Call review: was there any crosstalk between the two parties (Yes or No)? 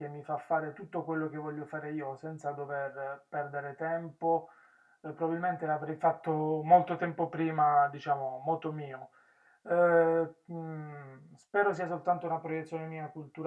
No